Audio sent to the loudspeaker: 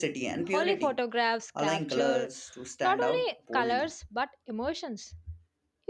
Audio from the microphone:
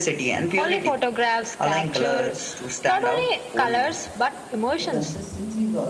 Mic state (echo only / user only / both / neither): both